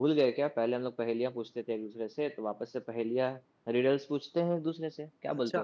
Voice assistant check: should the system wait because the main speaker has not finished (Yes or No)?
No